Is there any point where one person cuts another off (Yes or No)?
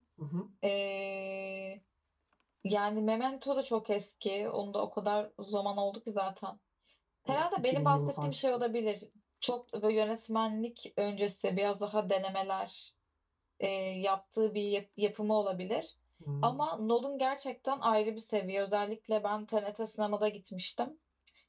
Yes